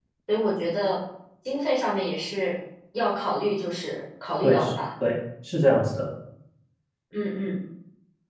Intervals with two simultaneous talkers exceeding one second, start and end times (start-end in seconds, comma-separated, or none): none